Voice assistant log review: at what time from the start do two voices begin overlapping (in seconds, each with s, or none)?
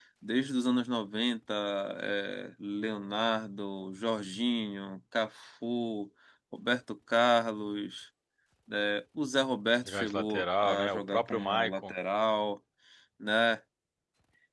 9.8 s